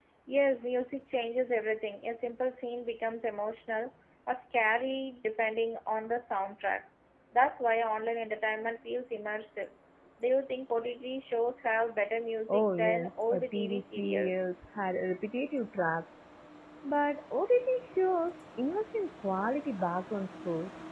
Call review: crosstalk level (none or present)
present